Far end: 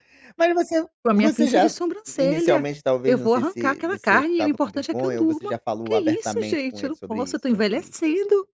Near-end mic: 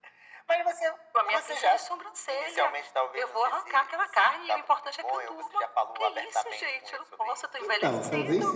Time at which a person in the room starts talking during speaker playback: 8 s

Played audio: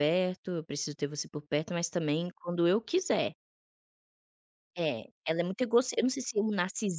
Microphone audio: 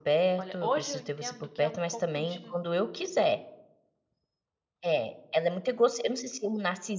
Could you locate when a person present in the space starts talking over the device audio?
0 s

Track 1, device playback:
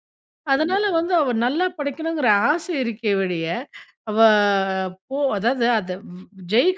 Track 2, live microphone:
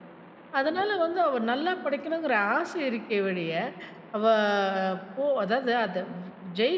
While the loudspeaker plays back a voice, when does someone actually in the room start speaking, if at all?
none

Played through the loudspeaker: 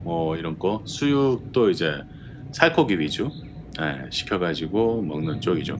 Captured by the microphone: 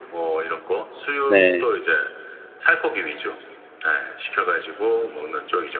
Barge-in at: 1 s

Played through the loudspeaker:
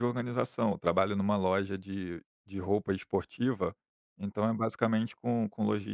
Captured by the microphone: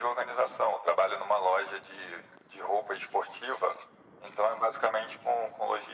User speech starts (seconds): none

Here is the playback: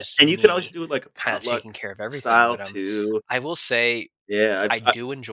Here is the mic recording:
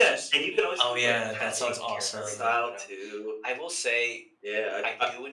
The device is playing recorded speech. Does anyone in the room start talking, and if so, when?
1 s

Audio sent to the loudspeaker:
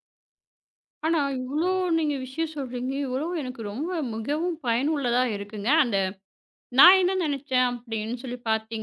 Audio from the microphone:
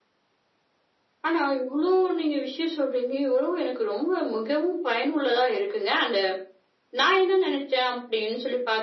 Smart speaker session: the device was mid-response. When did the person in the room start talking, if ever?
none

